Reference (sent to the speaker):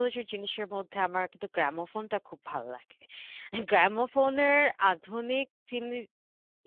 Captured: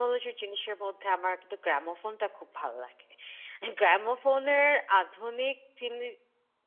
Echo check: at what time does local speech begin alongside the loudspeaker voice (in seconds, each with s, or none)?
none